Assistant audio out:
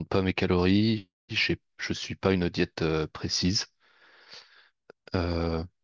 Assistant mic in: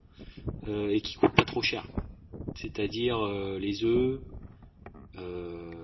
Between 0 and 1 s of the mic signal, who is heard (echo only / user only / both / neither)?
user only